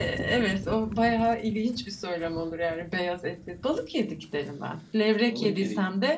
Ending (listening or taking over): listening